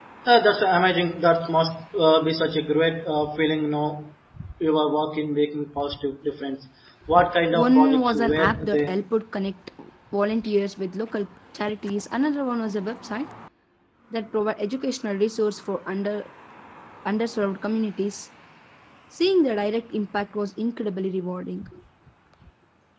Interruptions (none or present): present